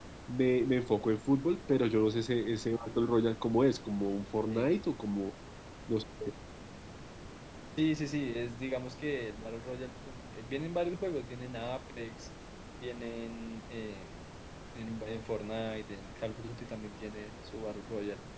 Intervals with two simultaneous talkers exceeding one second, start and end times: none

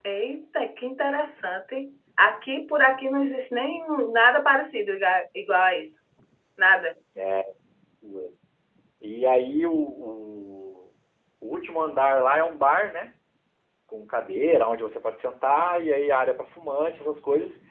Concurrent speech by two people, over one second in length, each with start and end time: none

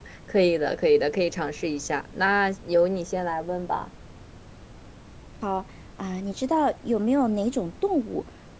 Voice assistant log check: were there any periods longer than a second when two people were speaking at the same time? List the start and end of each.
none

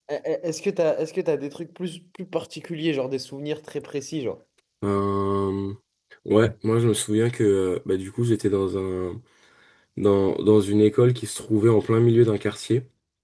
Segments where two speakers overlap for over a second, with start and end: none

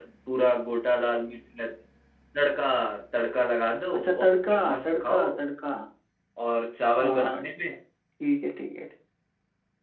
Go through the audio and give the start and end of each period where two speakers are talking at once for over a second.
4.0-5.3

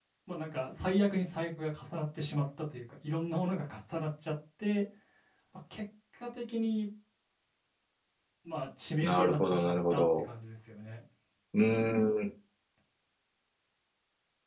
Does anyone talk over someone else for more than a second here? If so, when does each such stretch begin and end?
9.0-10.2

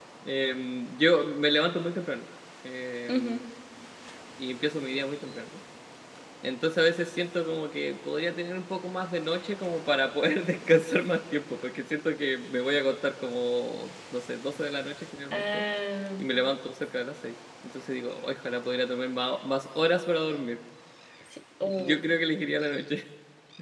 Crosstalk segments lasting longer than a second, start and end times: none

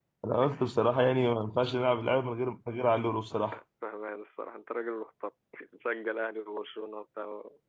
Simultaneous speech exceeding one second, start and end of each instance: none

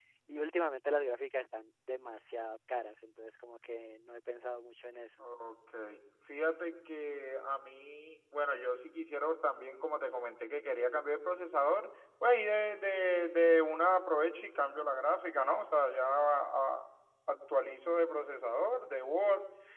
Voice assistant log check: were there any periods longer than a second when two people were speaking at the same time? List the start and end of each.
none

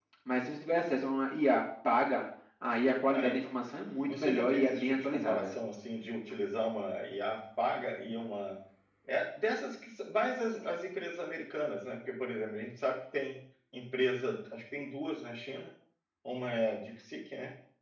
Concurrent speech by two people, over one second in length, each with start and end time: 4.0-5.5

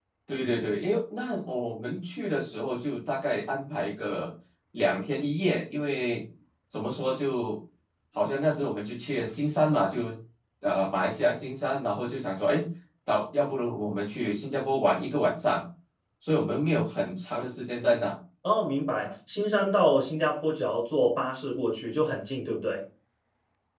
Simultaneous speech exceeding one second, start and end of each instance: none

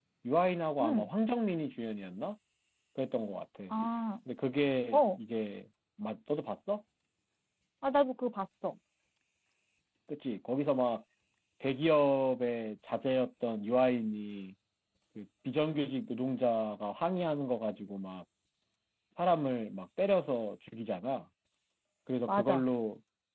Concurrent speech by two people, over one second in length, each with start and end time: none

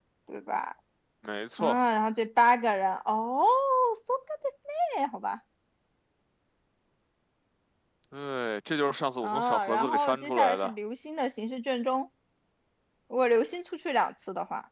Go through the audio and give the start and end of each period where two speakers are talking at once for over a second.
9.2-10.7

